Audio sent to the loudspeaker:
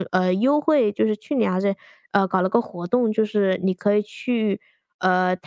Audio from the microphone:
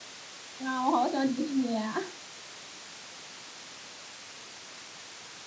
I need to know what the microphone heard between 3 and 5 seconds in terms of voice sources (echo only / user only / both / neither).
neither